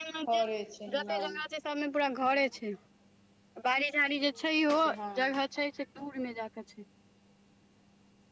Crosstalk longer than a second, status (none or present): none